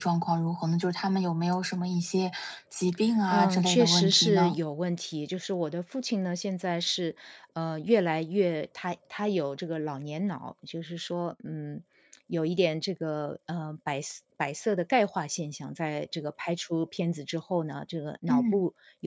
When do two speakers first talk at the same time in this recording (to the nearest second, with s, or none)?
3 s